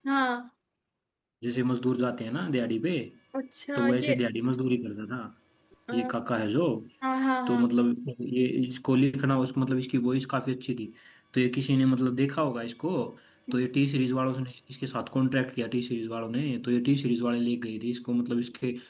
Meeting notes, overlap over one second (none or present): none